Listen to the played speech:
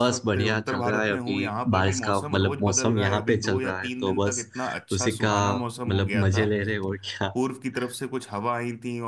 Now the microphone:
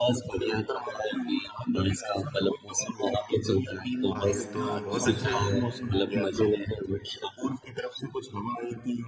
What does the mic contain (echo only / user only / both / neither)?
both